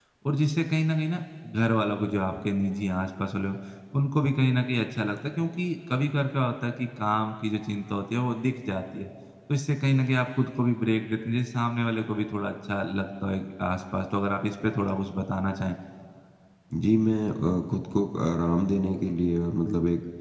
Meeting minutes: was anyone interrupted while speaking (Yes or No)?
No